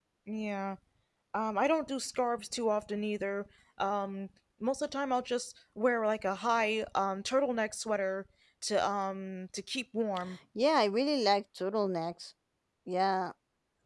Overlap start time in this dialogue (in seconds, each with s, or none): none